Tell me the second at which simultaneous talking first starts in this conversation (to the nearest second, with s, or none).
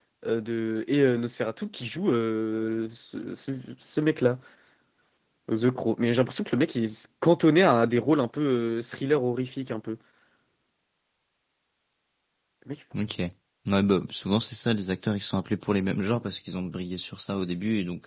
none